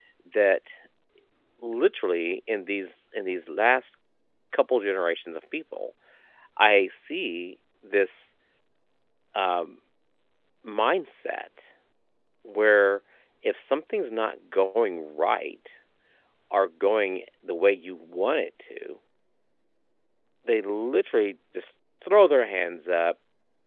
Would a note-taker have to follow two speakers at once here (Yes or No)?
No